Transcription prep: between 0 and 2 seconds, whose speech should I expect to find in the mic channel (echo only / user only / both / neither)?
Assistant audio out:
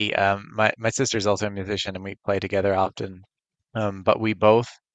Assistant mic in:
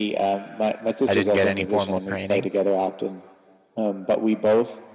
both